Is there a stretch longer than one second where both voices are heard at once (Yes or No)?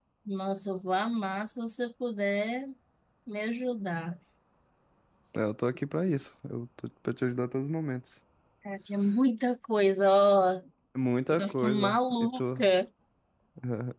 Yes